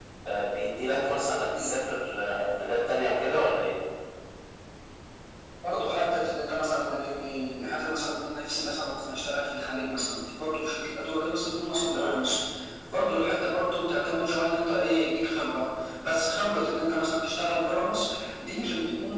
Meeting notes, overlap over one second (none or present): none